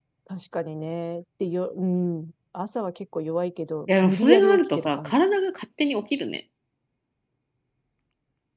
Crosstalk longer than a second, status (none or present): present